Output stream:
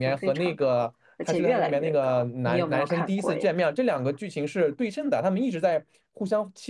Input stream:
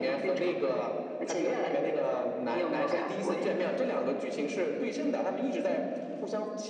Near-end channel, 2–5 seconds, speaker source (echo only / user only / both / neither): echo only